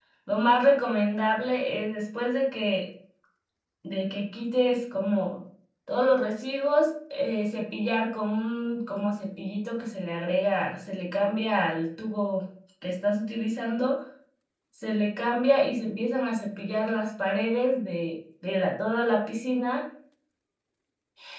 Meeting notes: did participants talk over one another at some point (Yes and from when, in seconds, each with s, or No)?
No